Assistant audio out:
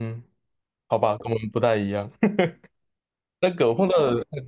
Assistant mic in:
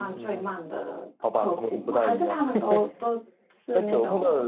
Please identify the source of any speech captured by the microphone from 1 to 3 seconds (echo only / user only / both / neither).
both